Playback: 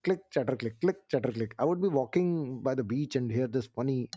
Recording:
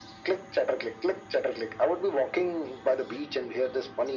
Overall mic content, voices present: echo only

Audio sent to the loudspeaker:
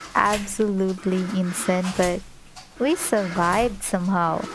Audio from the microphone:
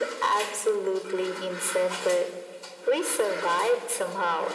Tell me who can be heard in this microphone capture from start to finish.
echo only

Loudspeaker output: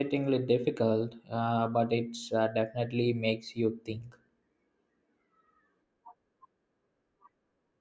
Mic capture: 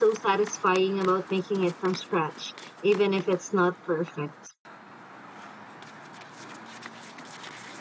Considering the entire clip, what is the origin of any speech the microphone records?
user only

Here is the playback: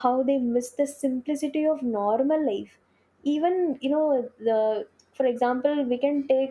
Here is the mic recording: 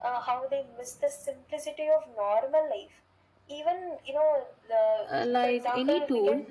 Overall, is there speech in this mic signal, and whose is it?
both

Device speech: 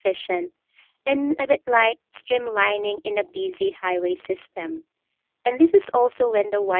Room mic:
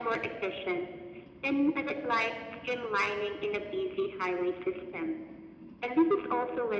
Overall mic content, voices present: echo only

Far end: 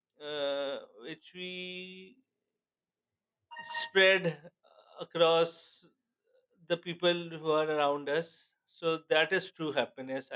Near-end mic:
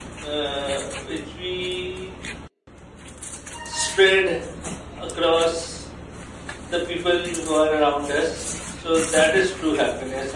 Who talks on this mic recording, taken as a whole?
echo only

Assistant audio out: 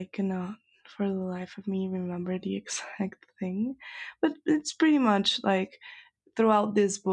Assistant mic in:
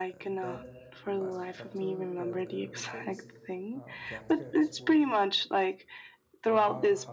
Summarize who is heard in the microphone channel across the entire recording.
both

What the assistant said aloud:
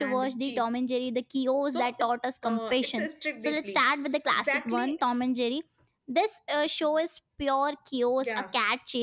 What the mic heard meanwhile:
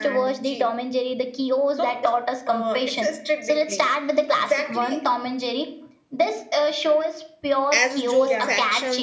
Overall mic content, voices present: both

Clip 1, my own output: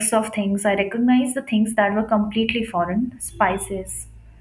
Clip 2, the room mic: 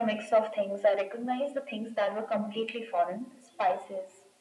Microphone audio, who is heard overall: echo only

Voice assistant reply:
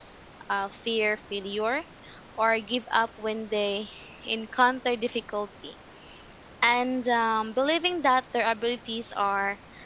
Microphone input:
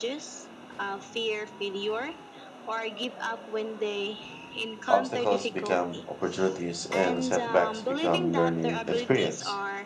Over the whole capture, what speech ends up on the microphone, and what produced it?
both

